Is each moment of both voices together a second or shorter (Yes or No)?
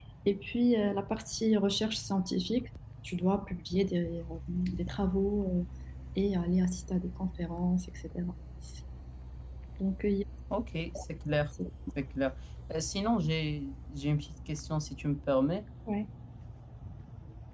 Yes